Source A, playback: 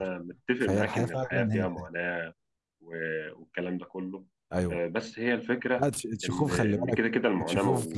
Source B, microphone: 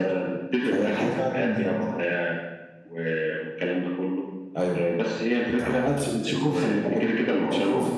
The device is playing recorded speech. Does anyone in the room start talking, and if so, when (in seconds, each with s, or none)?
5.5 s